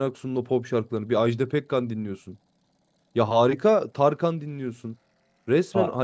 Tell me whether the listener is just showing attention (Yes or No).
Yes